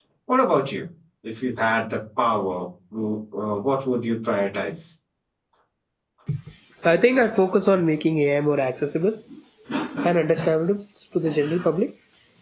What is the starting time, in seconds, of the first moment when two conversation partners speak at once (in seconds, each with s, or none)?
none